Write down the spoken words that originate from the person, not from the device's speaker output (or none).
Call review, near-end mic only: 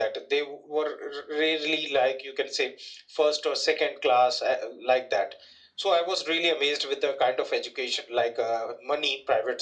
none